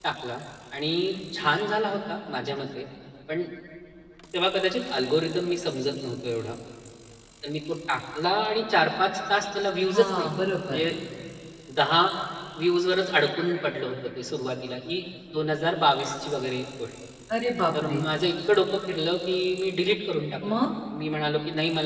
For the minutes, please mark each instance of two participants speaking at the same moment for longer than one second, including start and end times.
none

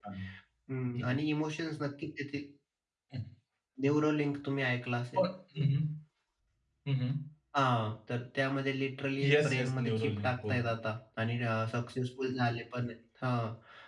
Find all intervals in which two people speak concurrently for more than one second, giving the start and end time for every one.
9.2-10.7

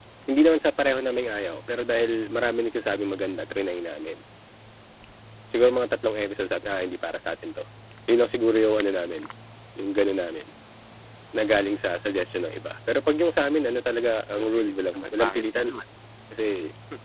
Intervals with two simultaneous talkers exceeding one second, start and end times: 14.3-15.7

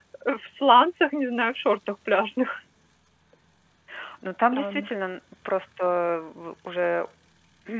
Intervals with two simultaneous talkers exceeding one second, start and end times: none

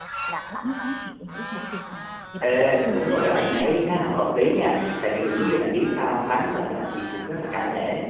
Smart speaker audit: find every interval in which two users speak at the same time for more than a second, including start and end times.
2.4-4.0

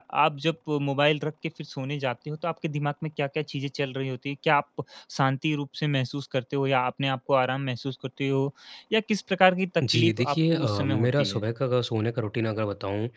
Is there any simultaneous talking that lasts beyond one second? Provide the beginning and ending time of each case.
9.9-11.4

